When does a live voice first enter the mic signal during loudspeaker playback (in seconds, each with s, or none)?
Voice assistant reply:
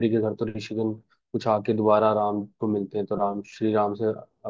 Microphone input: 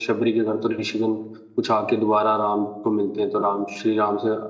none